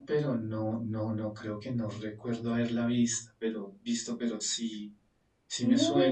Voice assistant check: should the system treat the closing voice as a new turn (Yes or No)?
Yes